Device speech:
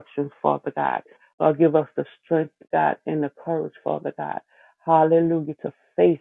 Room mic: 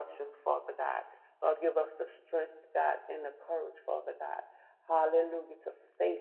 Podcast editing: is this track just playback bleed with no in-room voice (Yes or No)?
Yes